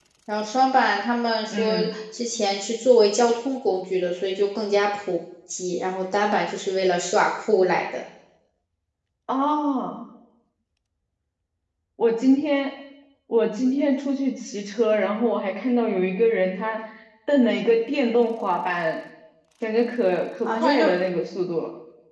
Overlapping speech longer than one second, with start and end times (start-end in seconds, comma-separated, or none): none